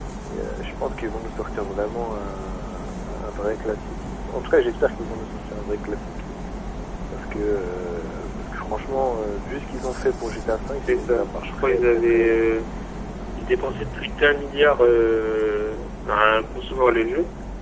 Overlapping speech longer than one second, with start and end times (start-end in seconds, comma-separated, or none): 10.8-12.3